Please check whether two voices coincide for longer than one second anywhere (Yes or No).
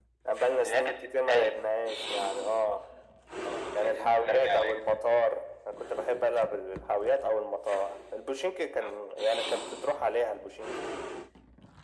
Yes